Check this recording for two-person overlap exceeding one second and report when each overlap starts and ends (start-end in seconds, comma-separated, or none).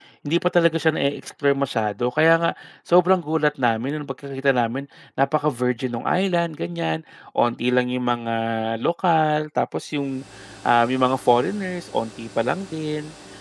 none